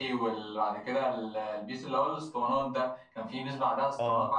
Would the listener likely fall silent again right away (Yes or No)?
Yes